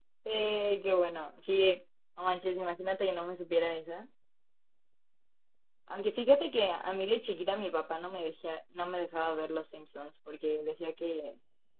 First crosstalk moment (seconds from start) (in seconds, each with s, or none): none